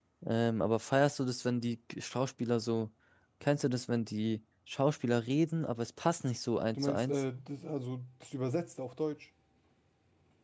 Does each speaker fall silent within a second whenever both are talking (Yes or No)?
Yes